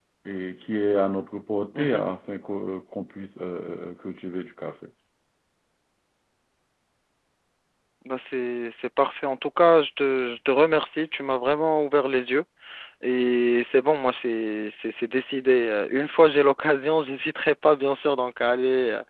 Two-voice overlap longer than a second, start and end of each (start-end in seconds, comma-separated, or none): none